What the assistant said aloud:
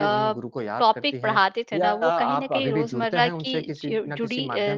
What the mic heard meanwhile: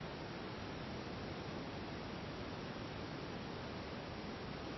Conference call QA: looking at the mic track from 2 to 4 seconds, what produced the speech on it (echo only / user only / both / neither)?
neither